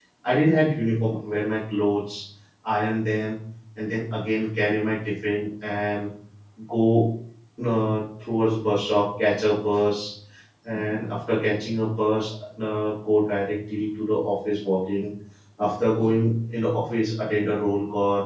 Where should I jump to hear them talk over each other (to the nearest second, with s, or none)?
none